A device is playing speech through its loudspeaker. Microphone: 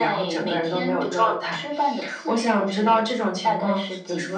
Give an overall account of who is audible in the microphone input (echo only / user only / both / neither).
echo only